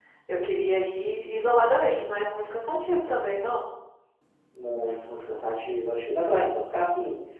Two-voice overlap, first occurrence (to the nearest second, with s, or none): none